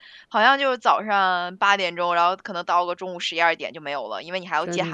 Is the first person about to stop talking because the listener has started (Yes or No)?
No